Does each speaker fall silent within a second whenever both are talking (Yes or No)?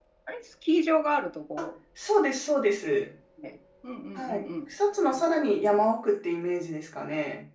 Yes